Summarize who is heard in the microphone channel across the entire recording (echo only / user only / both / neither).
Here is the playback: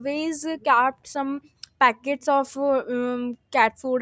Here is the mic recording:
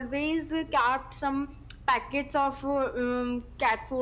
echo only